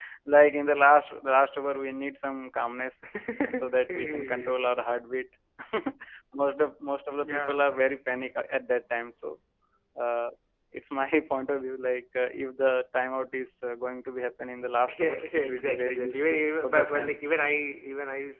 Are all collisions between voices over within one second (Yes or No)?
No